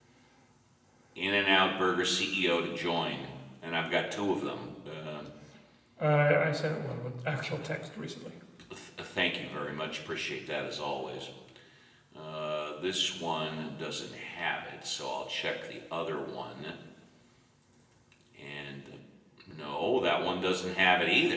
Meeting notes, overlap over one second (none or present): none